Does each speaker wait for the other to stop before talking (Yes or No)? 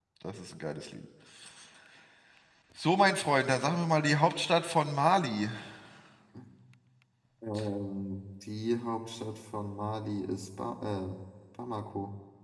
Yes